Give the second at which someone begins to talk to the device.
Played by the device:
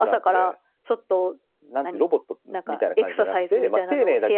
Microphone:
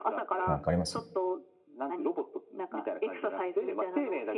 0.4 s

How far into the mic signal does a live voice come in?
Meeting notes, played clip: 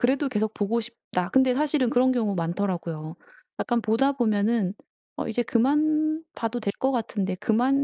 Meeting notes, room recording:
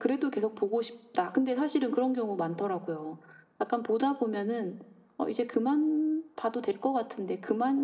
none

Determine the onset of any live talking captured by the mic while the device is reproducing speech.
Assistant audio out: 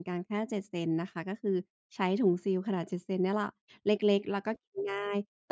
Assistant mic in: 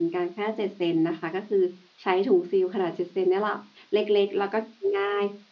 none

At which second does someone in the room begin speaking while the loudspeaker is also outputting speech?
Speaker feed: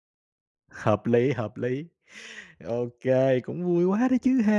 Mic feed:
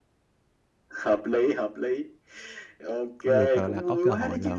3.2 s

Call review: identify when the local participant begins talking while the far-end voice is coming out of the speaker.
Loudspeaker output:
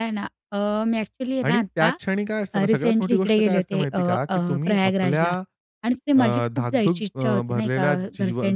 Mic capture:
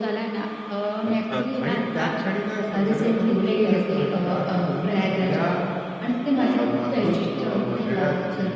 1.0 s

